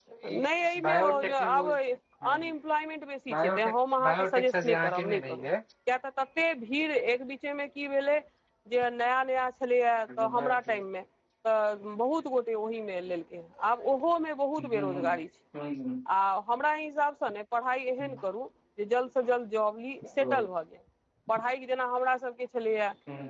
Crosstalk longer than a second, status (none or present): present